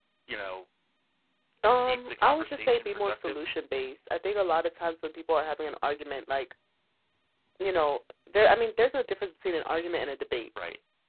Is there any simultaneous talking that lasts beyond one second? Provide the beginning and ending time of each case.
1.9-3.4

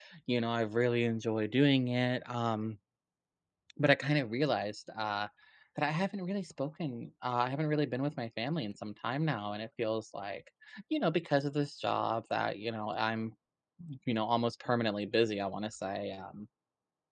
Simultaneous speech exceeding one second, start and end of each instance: none

